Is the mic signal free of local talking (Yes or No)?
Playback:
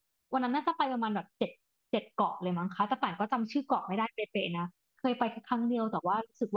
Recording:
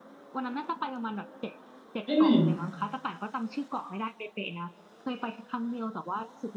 No